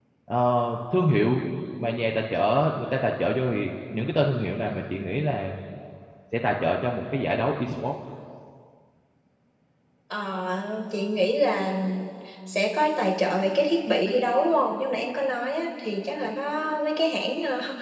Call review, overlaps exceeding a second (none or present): none